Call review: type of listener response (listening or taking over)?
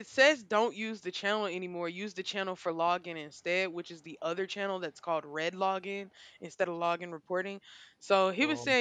listening